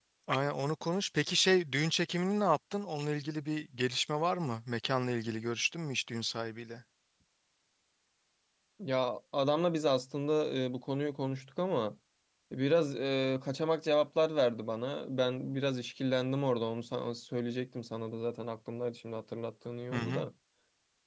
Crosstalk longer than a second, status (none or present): none